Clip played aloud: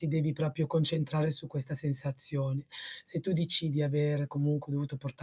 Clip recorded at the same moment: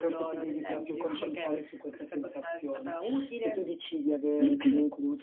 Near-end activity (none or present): present